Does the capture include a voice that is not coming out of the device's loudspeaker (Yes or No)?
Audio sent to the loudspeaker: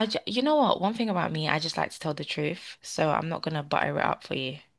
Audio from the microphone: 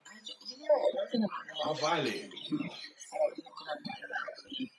Yes